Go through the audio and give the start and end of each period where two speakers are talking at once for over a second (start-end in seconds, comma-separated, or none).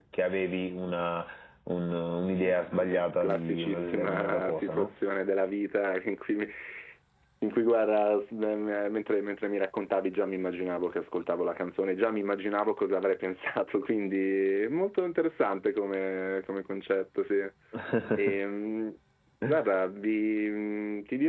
2.8-4.9